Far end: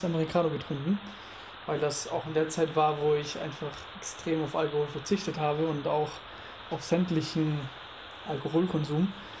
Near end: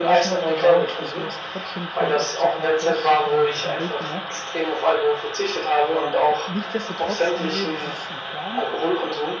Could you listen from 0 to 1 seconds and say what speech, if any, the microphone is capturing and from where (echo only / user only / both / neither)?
both